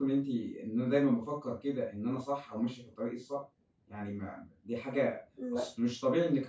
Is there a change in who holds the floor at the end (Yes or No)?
No